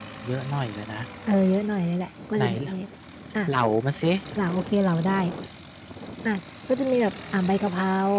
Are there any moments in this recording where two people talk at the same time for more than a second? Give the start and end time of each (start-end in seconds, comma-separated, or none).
none